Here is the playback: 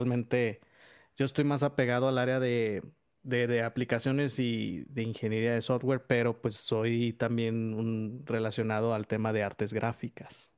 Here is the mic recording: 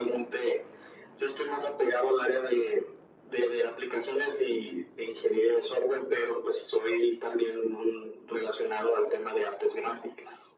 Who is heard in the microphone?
echo only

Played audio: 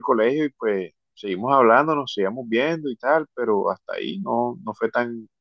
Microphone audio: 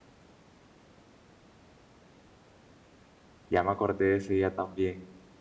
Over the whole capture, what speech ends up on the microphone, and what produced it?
user only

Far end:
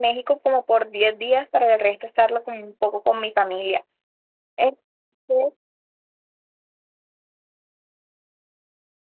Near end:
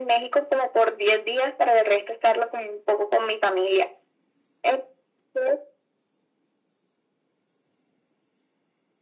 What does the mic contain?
echo only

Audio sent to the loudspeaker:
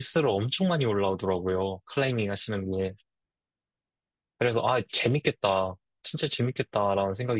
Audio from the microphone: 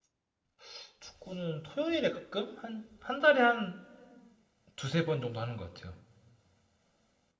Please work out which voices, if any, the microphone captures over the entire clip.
user only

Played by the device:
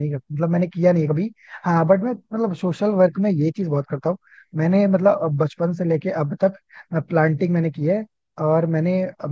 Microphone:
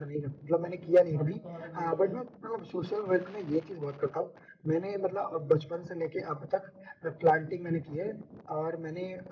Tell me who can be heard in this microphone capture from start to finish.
both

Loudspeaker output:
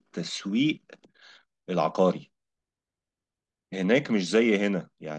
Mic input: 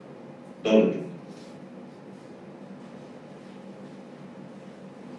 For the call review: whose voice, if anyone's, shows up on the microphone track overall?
user only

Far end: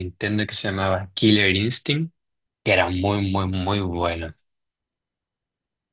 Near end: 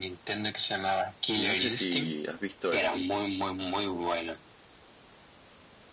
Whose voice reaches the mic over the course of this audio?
both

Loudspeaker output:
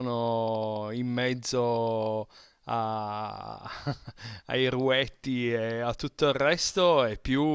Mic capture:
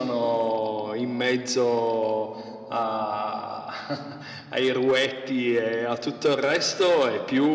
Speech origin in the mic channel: echo only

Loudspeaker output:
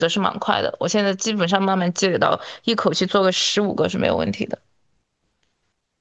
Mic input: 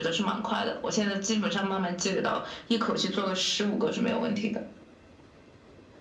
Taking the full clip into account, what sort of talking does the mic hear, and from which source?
echo only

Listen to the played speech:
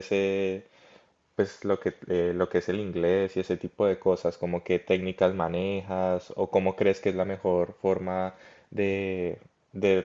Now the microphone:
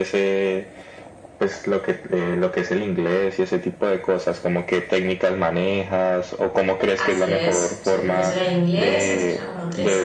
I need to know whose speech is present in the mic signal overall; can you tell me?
both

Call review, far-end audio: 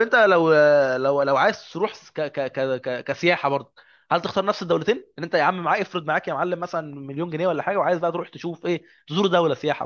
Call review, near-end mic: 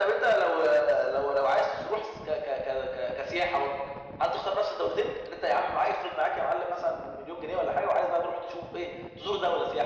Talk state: echo only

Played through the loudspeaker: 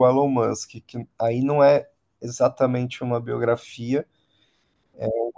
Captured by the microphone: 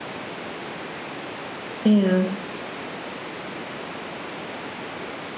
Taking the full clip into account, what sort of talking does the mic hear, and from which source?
user only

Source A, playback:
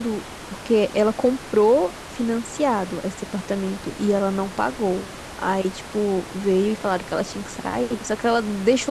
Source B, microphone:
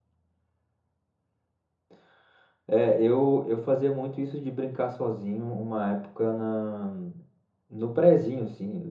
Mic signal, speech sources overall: user only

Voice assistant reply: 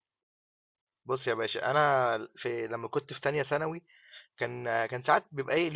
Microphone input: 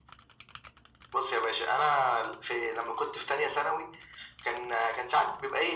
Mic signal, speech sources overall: echo only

